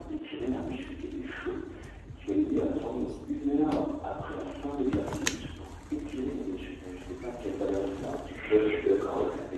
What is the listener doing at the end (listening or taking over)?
taking over